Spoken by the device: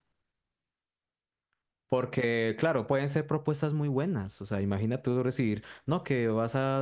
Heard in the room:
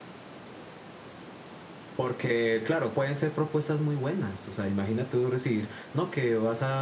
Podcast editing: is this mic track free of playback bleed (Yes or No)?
No